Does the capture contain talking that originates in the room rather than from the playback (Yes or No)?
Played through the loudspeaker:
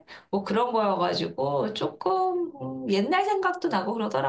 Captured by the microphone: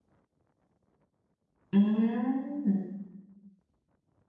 Yes